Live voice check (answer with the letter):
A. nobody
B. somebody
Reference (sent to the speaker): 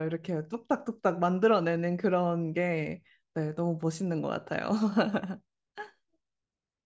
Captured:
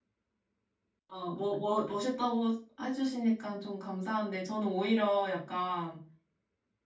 B